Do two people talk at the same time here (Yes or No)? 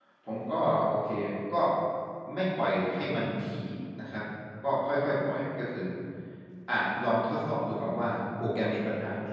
No